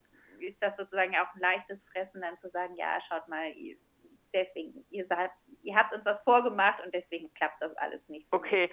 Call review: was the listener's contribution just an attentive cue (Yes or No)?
No